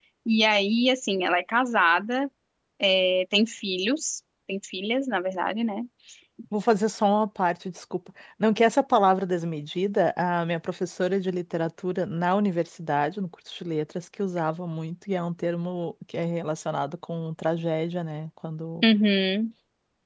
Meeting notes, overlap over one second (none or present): none